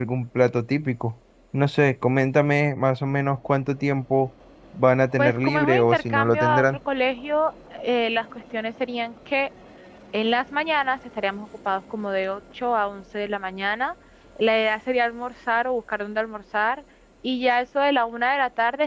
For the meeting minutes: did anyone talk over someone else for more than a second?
Yes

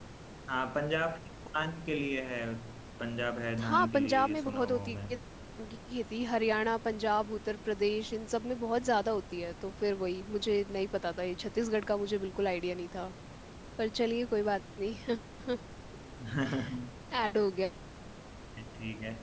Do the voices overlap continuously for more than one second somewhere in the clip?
Yes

